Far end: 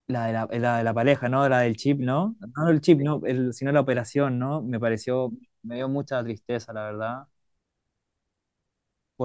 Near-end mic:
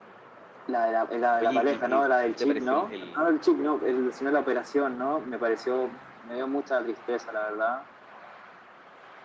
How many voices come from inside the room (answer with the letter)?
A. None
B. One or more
B